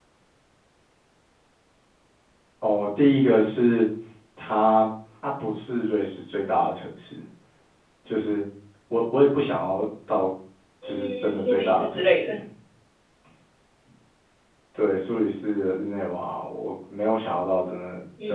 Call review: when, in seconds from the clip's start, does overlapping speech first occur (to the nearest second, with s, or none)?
11 s